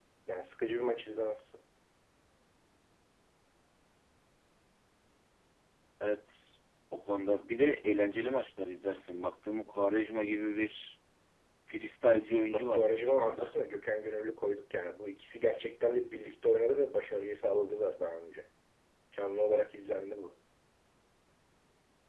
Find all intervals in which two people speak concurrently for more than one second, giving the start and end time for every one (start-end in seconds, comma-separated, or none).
12.3-13.5